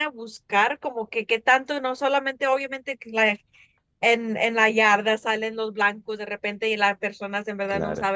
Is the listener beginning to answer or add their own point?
No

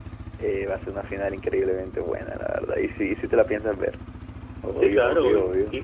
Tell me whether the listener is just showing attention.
No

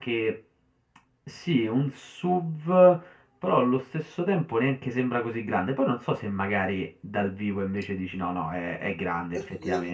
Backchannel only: No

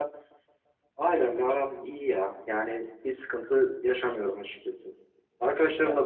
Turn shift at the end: No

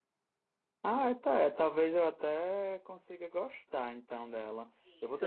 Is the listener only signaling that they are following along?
No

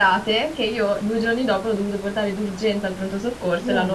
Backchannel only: Yes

